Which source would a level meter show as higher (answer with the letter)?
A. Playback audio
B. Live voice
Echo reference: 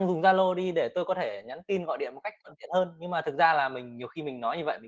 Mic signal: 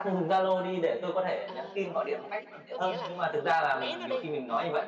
A